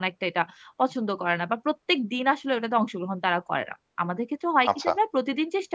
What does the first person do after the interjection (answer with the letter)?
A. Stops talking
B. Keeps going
B